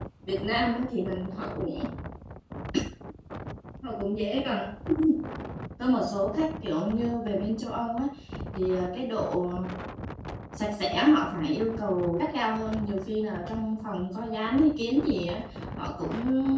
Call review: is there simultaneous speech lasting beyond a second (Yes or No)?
No